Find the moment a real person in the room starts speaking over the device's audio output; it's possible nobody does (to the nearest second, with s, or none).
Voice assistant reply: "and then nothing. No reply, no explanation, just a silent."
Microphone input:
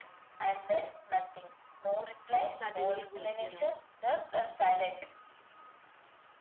2 s